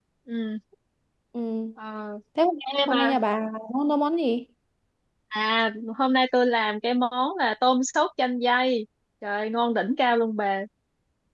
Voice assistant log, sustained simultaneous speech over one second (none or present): none